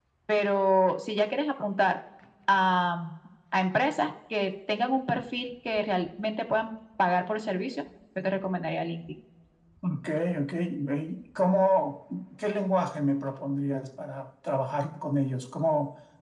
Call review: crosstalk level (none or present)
none